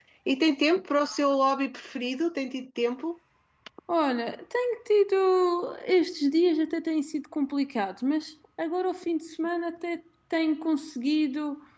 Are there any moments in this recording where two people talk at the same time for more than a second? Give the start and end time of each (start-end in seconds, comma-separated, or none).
none